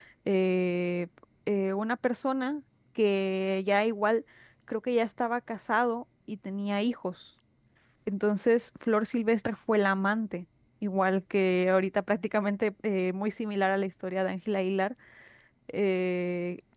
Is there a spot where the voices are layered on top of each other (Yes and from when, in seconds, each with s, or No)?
No